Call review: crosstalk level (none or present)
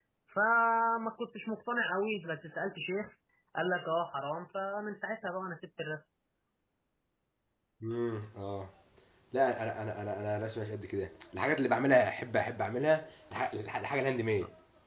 none